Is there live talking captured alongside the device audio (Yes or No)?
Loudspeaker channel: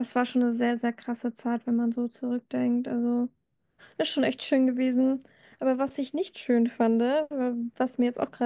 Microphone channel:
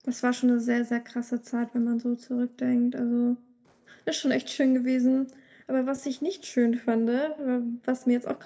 No